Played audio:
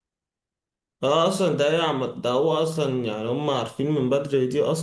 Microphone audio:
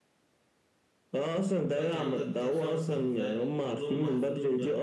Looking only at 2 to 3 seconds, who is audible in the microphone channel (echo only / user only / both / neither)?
both